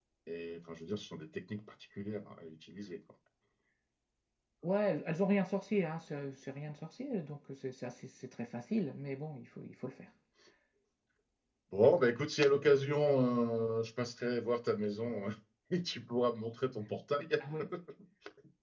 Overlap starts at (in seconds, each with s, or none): none